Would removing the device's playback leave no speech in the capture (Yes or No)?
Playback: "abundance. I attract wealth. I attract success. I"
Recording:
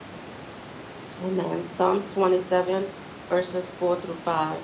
No